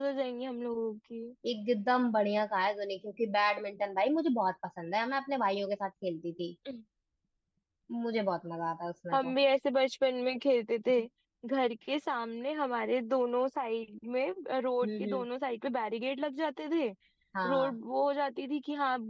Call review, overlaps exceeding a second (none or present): none